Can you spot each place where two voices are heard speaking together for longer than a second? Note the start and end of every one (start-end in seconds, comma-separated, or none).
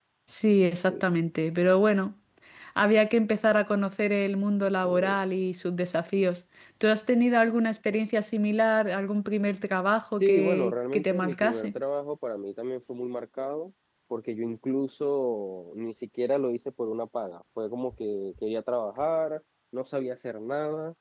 10.2-11.7